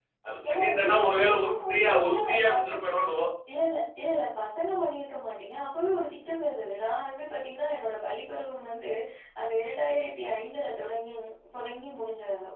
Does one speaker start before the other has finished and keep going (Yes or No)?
Yes